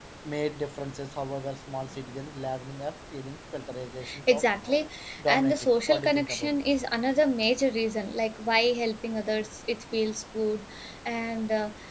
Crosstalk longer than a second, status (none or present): present